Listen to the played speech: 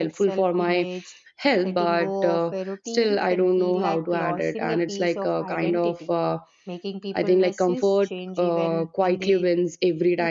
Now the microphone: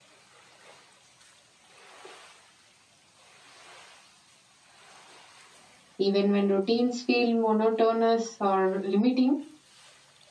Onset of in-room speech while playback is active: 6.0 s

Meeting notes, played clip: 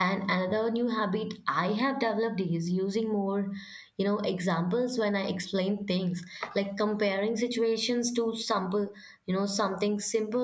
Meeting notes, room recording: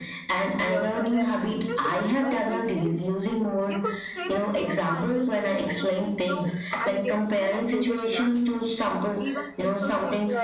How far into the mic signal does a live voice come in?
0.6 s

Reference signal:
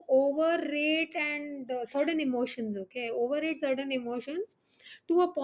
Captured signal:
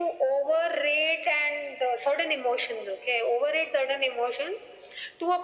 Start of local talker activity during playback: none

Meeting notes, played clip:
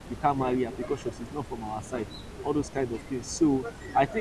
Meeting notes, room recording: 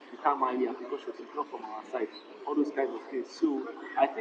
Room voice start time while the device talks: none

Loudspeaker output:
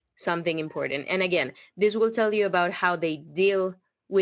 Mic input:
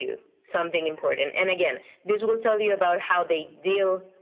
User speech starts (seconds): none

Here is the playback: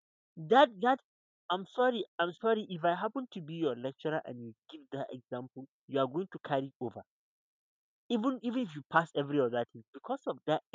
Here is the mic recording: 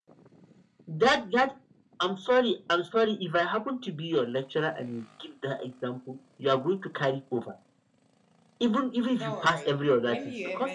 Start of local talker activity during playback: 9.2 s

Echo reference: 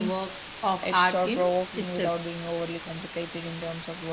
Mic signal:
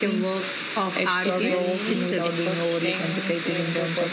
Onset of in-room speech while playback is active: 1.2 s

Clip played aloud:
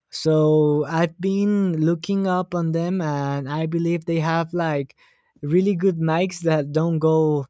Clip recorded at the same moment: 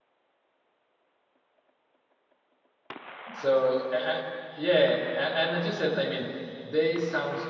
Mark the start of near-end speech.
3.3 s

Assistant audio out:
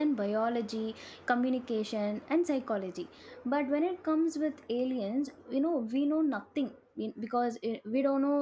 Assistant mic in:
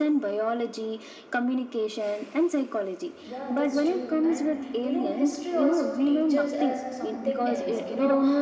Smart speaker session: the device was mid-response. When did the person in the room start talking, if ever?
3.2 s

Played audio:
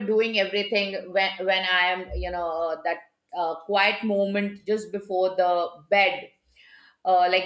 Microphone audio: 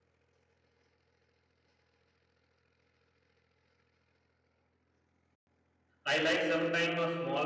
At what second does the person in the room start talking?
6.0 s

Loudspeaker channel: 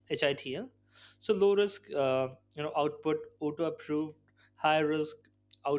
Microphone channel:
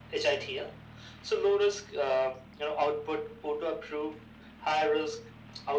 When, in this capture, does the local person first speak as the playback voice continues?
none

